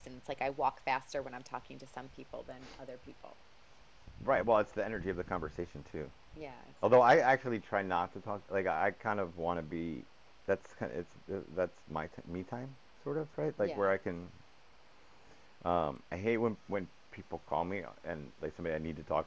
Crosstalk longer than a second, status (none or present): none